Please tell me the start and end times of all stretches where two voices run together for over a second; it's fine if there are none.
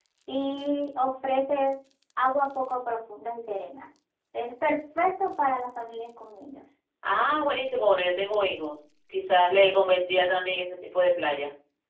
none

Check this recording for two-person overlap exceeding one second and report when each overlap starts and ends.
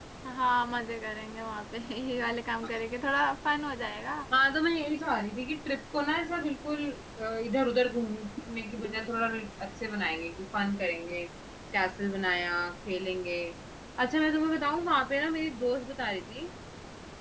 none

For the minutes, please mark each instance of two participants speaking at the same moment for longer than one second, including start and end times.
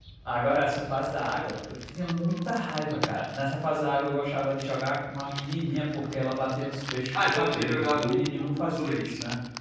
7.2-9.0

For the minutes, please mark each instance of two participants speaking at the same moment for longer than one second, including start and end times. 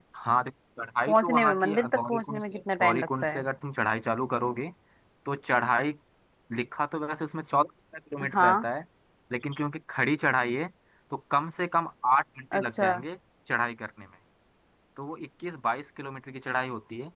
1.1-3.4

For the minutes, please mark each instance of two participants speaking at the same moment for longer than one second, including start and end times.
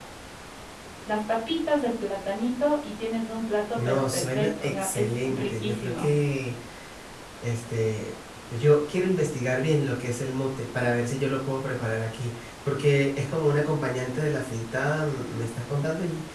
3.8-6.1

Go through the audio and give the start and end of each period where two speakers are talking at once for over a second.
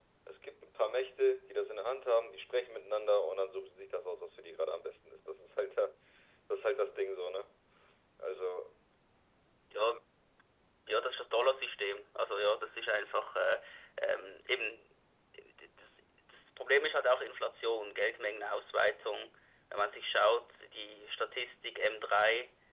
none

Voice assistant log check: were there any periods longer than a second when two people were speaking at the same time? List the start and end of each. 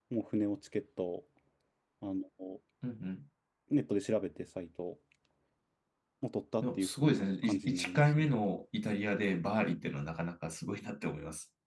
6.6-8.4

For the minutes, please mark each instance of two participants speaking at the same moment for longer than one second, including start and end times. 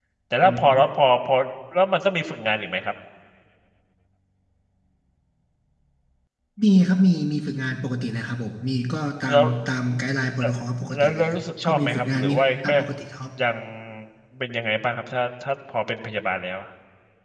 10.9-12.7

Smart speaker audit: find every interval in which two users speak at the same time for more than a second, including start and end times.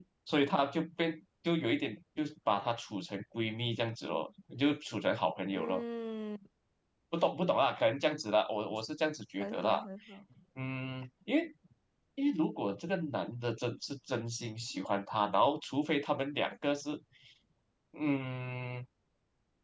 none

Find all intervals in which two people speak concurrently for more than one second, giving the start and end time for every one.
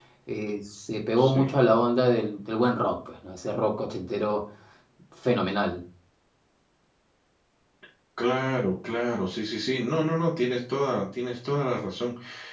none

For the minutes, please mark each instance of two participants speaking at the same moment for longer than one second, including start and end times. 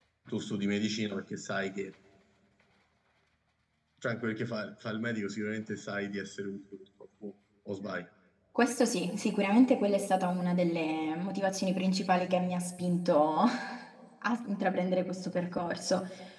none

